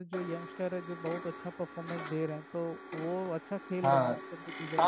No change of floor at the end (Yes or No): No